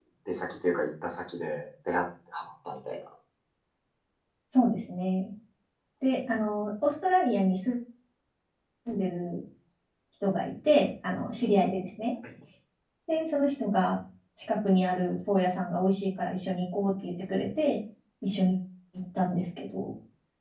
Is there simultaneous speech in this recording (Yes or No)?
No